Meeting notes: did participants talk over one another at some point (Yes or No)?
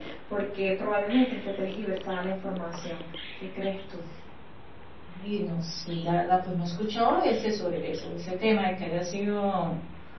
No